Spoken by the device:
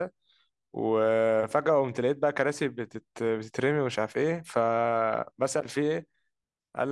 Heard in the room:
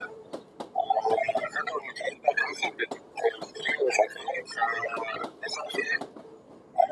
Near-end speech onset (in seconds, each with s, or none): none